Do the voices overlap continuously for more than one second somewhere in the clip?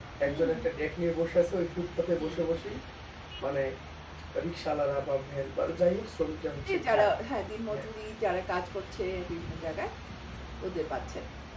No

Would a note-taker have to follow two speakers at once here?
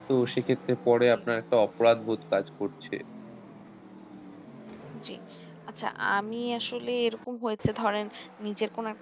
No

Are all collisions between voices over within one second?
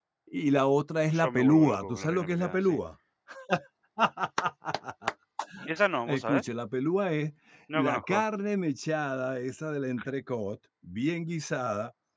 No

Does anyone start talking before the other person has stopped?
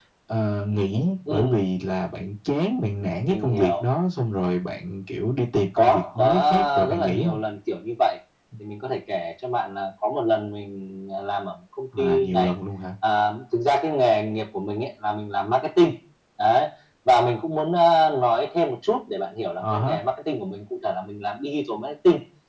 Yes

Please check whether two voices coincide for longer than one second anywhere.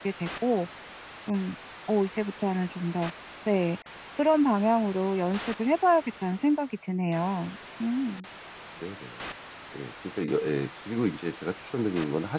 No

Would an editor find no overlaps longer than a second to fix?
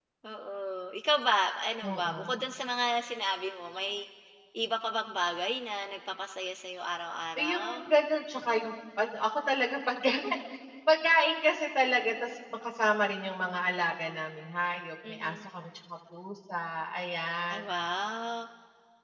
Yes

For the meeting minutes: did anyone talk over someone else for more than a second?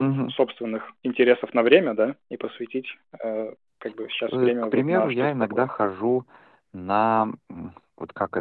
Yes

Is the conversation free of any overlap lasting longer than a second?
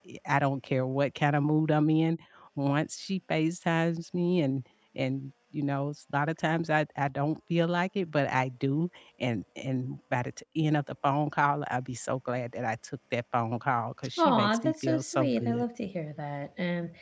No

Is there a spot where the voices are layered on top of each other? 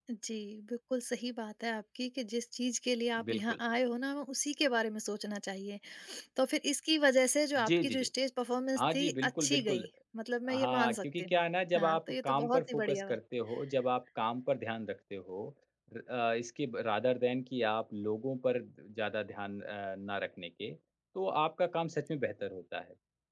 Yes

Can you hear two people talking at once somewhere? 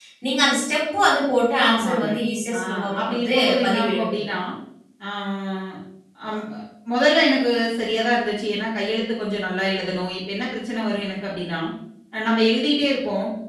Yes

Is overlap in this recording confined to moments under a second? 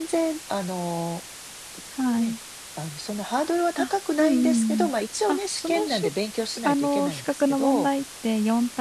No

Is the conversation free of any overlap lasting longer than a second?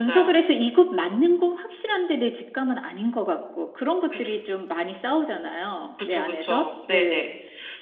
No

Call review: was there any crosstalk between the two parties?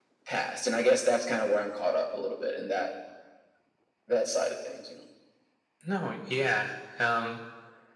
No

